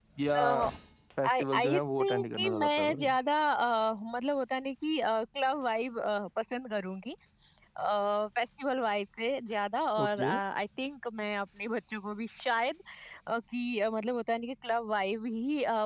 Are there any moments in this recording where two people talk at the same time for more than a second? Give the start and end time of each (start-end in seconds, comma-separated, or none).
1.4-3.1